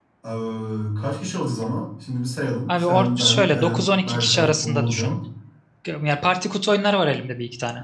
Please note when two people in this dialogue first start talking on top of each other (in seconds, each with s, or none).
2.7 s